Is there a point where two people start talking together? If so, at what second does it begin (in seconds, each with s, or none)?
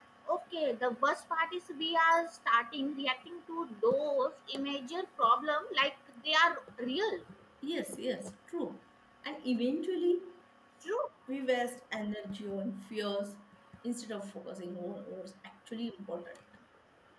none